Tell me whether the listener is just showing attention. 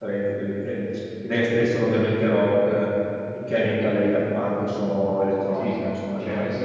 No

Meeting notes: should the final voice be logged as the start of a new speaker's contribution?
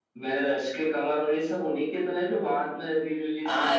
Yes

